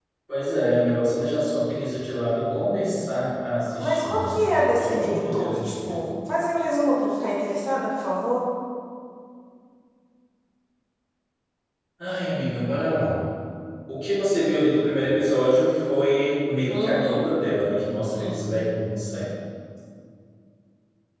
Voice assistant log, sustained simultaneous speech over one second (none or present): present